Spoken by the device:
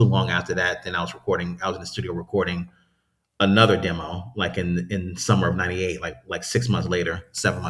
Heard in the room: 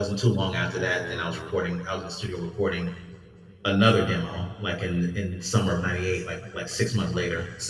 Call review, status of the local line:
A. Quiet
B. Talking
B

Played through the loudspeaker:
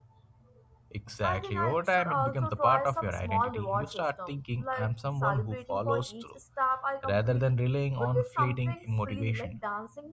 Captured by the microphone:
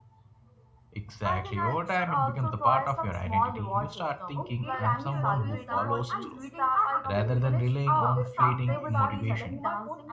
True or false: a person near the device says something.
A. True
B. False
A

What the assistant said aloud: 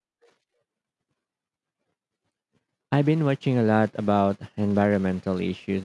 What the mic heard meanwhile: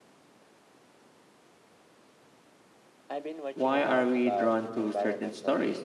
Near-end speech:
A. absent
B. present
B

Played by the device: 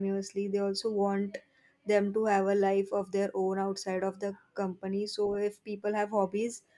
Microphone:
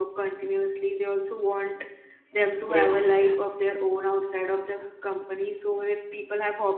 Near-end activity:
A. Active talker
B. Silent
A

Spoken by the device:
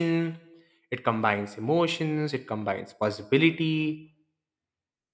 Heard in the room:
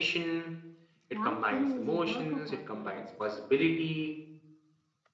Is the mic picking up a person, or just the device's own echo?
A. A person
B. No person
A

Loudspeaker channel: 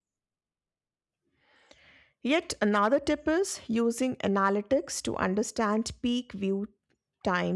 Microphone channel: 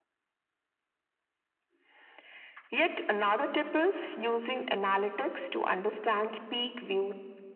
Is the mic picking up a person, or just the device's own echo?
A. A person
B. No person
B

